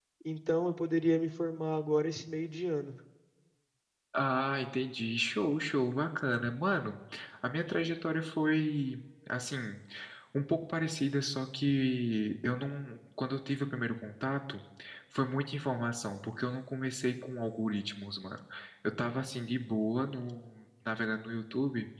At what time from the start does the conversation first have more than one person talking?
none

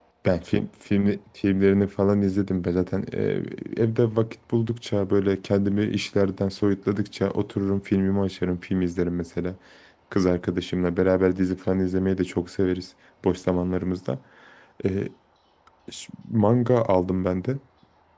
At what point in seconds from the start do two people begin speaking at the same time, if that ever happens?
none

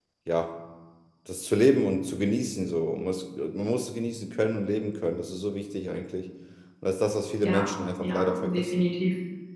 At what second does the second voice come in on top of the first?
7.4 s

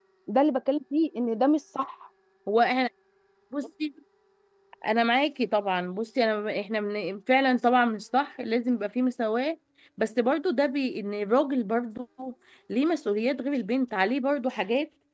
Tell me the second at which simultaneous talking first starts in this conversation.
none

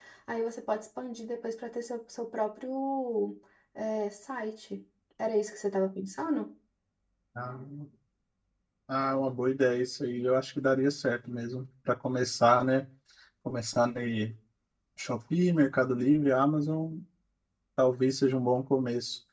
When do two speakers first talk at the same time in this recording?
none

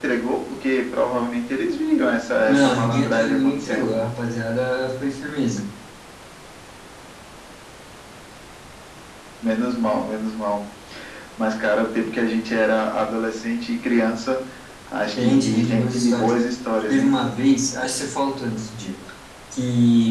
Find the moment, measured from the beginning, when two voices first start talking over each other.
2.4 s

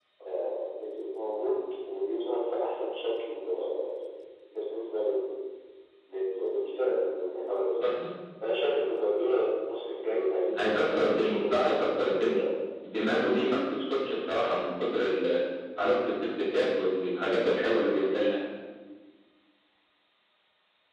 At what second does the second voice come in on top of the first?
10.6 s

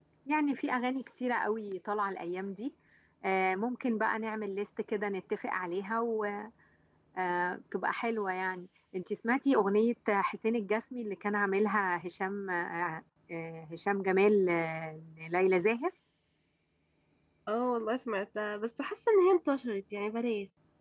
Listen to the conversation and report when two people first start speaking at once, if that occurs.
none

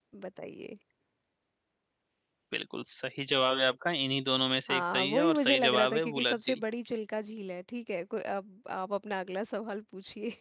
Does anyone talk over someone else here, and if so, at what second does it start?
4.7 s

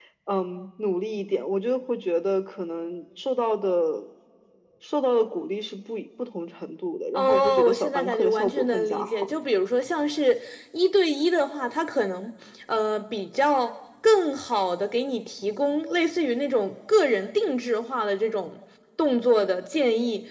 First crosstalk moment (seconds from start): 7.1 s

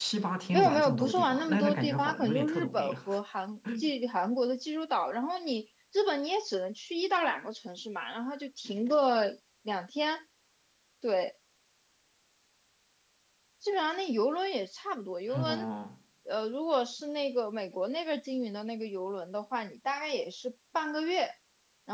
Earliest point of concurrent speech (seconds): 0.5 s

